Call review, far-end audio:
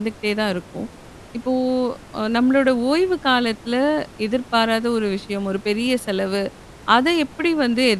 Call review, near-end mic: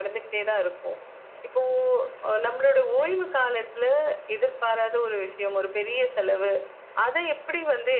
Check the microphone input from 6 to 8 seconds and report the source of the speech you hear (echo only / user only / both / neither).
echo only